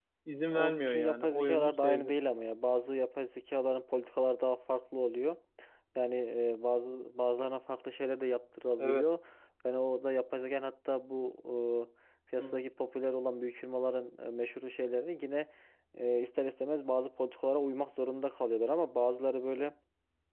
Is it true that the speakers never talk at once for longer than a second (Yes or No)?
No